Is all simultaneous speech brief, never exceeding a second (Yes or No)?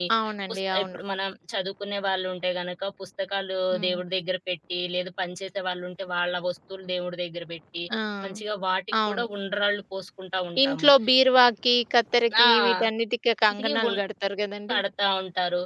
Yes